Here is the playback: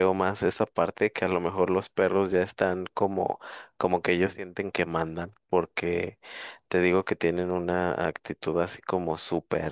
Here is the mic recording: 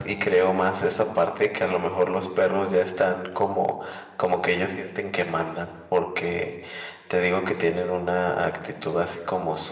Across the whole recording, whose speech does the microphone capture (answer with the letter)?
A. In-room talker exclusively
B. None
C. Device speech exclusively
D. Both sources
C